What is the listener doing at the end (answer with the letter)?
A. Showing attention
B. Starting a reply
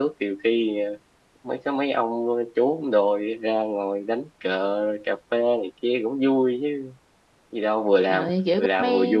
B